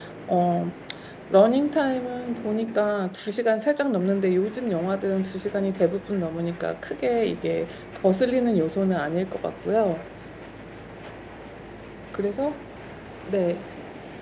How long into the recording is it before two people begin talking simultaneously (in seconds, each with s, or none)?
none